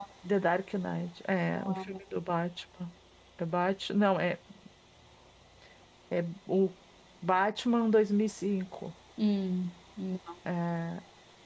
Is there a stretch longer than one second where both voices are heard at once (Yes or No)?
No